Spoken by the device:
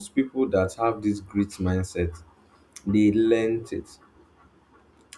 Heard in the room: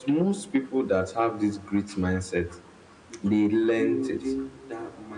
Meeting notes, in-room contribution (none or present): present